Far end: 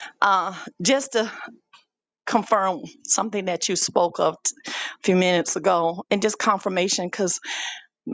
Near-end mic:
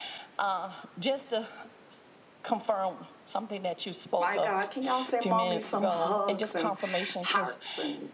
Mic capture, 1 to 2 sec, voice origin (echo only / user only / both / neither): echo only